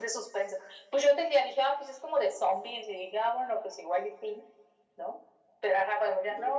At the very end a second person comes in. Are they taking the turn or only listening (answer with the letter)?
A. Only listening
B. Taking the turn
A